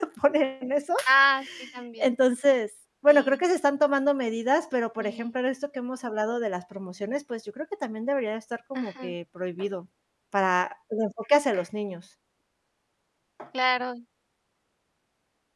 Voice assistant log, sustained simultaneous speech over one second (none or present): none